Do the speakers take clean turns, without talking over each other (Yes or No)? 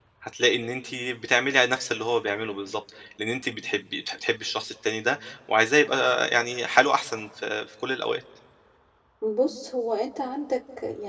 Yes